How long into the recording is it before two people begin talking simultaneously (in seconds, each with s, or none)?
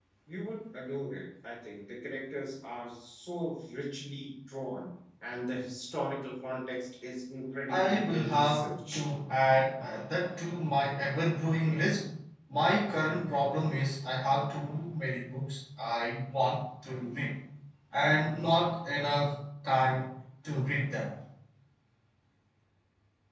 7.7 s